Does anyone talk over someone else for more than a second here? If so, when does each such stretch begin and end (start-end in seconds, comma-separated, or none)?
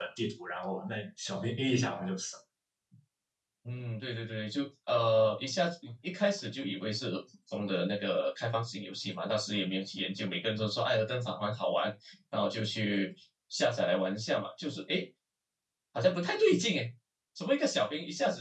none